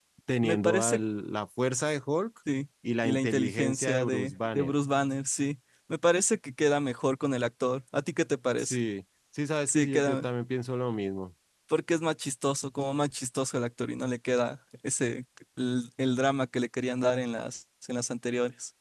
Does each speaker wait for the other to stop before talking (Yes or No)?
No